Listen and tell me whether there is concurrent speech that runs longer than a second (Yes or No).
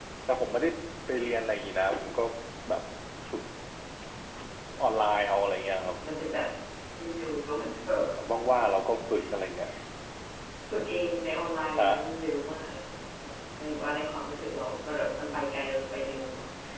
No